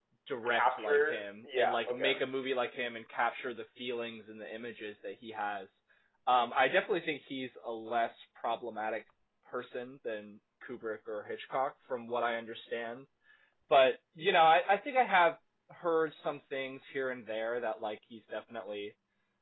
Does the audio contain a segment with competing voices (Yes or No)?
Yes